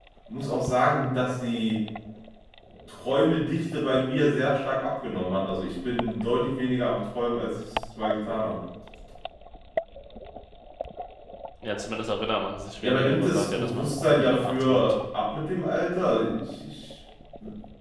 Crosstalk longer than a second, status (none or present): present